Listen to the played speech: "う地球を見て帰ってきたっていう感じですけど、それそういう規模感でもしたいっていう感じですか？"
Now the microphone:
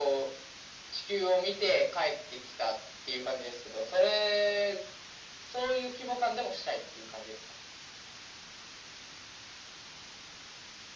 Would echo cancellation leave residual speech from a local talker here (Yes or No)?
No